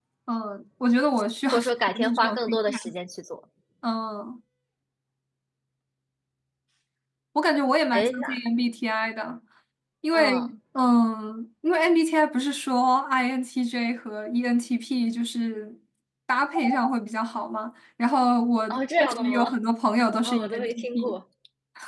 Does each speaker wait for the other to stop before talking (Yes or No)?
No